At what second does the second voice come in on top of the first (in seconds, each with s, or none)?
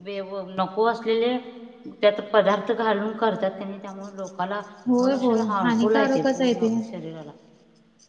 5.0 s